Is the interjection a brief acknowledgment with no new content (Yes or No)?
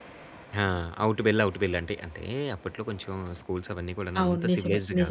No